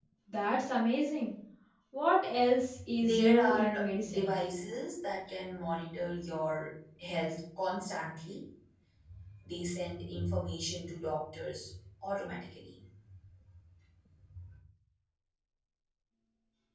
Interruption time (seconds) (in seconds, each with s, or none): 3.0 s